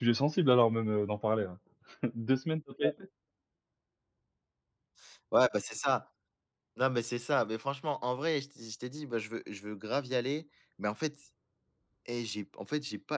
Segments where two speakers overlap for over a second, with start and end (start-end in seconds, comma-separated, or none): none